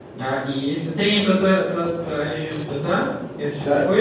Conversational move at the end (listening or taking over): taking over